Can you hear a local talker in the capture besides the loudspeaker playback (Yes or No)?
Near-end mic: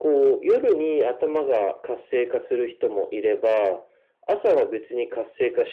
No